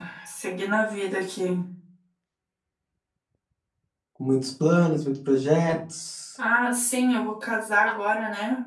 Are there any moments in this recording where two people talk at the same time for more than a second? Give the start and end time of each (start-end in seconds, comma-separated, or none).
none